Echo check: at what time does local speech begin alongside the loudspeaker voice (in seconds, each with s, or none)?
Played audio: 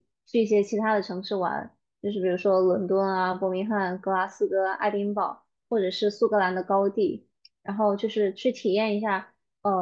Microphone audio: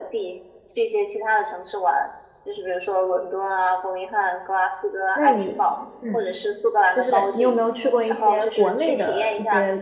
5.1 s